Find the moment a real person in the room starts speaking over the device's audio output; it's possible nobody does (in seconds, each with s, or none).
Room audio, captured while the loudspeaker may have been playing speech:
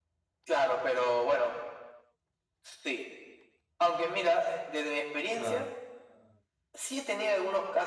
5.3 s